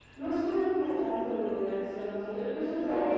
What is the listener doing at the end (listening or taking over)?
listening